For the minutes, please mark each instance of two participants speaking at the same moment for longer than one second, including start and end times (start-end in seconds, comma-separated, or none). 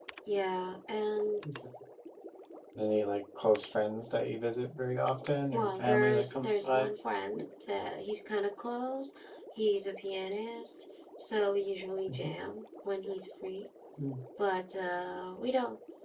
5.5-6.9